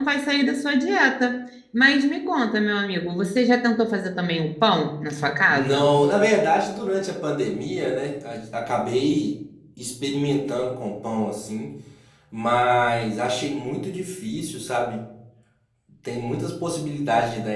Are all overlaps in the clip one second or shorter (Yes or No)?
Yes